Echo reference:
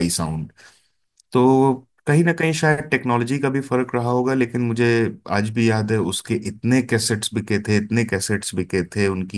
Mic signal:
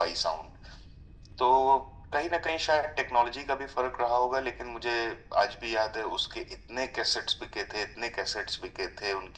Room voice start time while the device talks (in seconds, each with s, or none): none